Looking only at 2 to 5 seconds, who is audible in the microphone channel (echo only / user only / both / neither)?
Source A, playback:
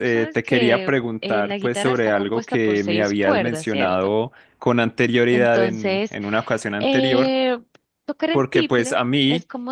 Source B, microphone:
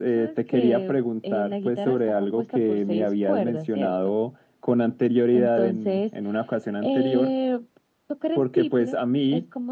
echo only